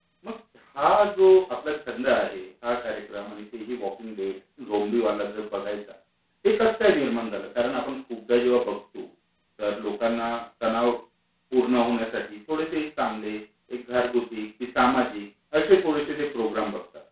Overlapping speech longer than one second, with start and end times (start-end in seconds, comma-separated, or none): none